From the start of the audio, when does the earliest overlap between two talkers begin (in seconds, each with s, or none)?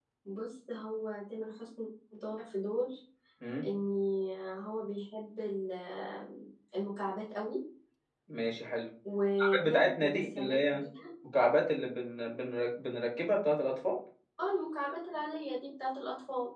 9.6 s